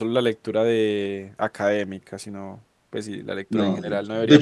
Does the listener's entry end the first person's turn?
Yes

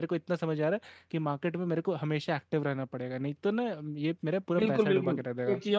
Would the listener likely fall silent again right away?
No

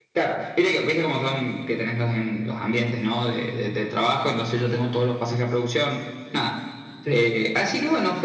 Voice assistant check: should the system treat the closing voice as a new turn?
No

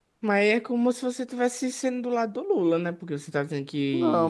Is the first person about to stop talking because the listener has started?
Yes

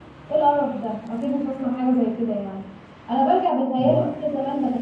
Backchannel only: Yes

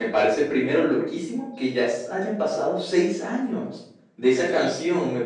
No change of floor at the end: Yes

